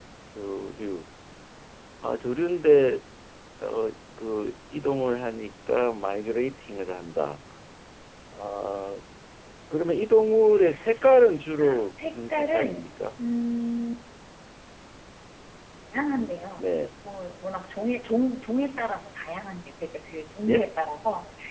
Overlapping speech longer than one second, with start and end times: 11.6-12.8

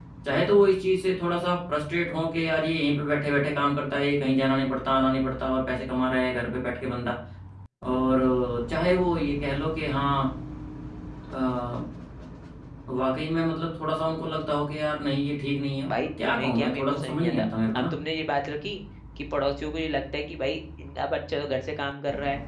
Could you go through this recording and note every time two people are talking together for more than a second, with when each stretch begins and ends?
15.9-18.0

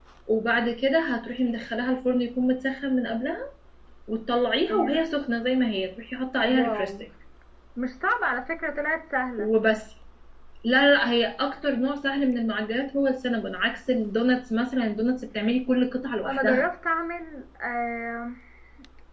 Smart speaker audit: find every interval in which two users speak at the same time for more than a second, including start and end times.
none

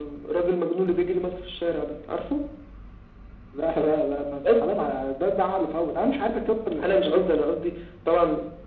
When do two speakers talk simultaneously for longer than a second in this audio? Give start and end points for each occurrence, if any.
none

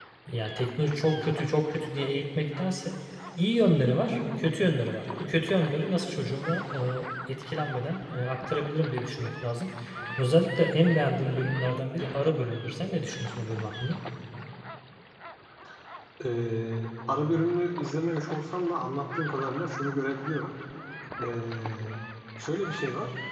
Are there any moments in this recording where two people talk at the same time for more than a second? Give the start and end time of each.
none

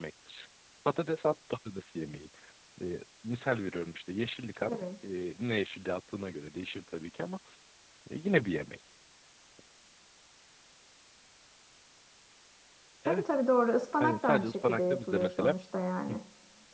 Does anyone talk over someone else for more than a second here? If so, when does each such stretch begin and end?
14.0-15.6

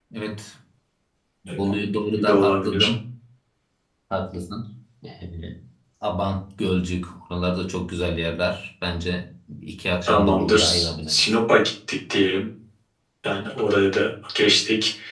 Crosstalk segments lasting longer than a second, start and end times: 1.6-2.9, 10.1-11.3

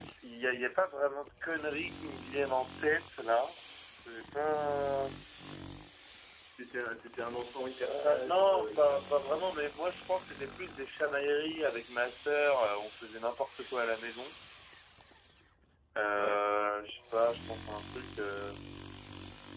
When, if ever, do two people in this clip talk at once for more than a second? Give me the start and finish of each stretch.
7.8-9.4

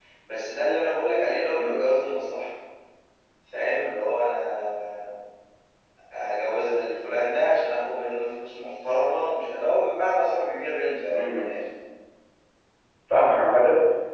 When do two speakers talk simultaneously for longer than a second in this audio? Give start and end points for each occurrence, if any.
none

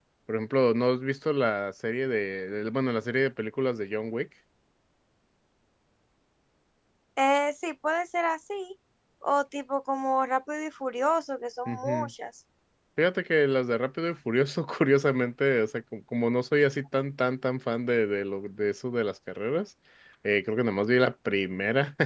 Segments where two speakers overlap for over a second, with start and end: none

